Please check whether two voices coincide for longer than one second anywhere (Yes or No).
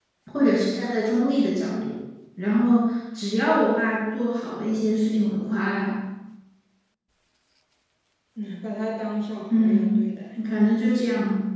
No